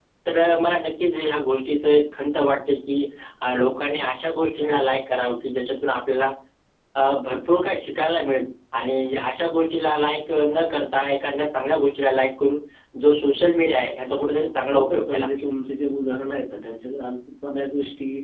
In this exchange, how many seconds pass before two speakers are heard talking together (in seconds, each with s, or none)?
14.1 s